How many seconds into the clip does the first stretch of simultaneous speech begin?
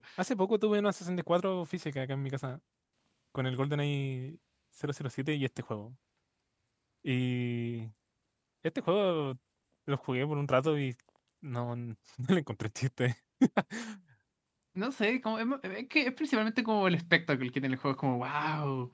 none

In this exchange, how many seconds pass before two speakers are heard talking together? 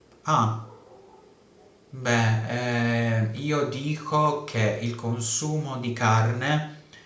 none

